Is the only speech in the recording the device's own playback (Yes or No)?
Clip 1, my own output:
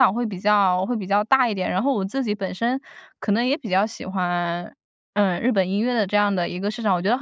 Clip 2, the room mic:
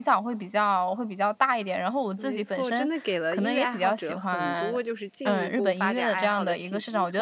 No